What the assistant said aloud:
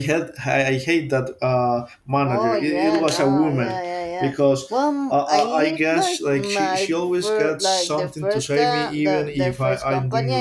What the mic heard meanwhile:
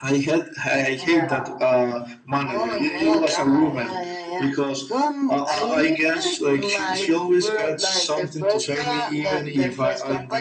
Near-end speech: present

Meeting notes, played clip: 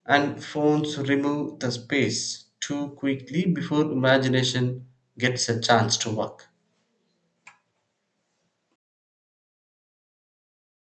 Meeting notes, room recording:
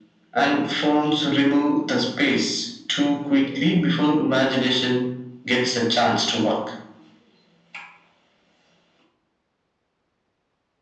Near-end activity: none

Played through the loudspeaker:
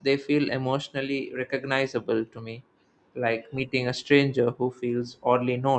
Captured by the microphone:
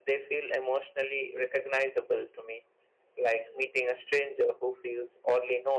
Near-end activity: none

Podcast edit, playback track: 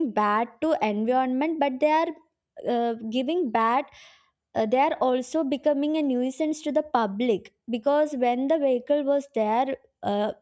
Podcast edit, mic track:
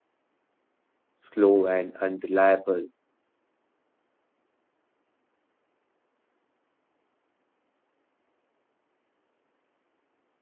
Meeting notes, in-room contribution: present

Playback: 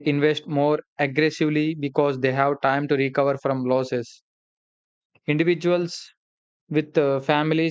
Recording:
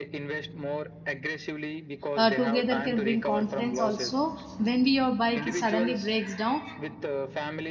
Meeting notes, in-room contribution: present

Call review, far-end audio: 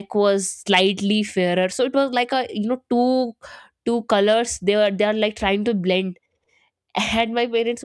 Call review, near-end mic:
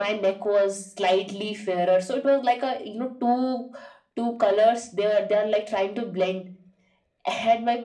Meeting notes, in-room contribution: none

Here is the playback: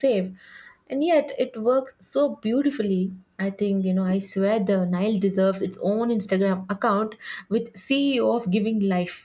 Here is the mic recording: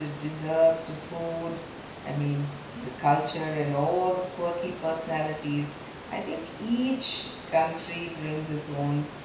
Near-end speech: present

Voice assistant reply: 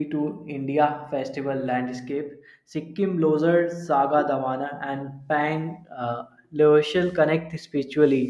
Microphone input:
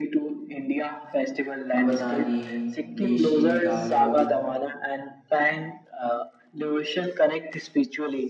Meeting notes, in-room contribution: present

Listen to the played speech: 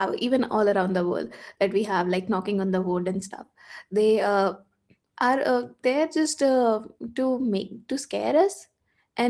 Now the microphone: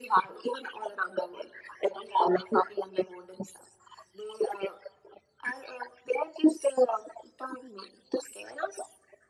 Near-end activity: none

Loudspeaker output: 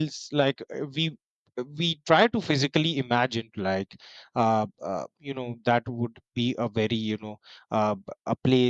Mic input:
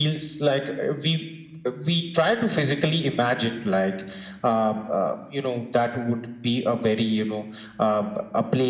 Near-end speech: none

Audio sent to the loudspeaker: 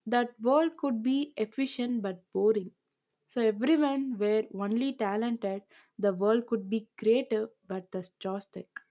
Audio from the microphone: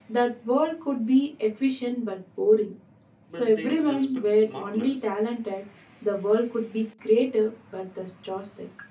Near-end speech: present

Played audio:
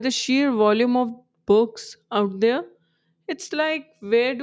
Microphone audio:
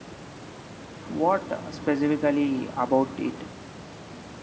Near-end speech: present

